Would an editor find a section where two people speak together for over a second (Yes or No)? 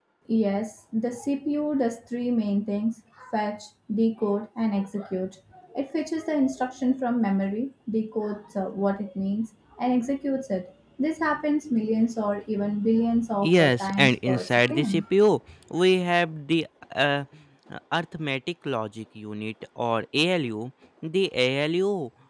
Yes